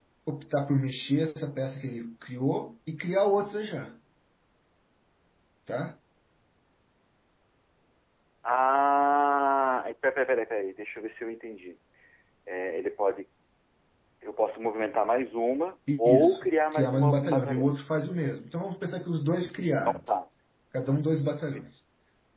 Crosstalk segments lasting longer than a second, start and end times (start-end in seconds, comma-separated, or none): 16.0-17.7